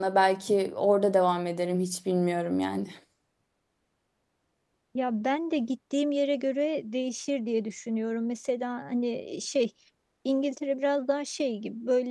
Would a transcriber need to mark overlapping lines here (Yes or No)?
No